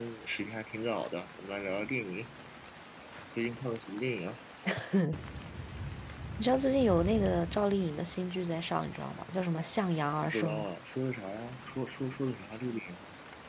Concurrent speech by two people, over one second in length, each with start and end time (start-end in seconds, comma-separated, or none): none